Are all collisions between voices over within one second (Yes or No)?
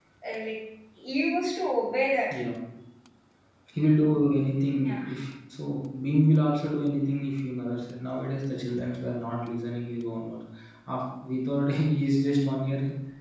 Yes